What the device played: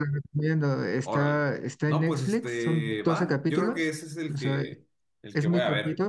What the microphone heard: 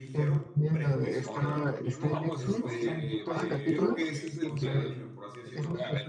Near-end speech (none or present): present